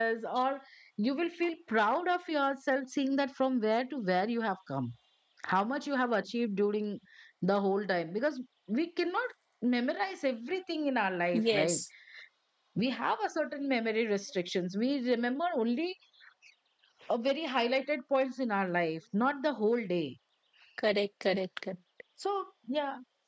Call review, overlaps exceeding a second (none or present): none